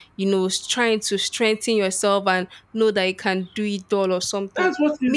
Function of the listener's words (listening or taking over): taking over